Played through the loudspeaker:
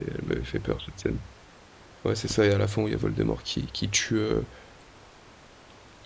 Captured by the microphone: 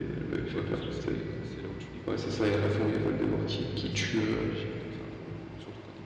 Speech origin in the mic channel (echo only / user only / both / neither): both